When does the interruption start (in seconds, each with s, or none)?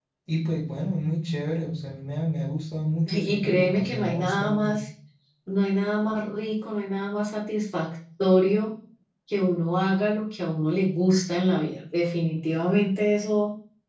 3.1 s